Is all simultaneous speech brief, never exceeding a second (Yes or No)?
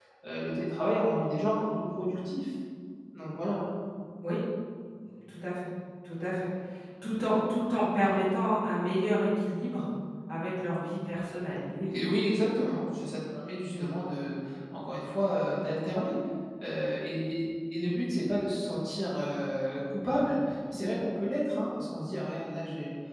Yes